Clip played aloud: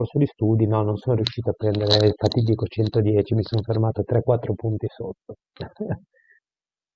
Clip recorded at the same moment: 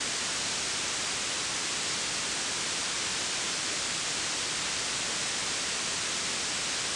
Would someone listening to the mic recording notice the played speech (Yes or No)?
No